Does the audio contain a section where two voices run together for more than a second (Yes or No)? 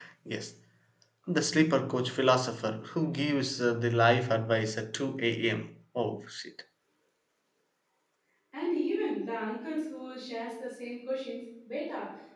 No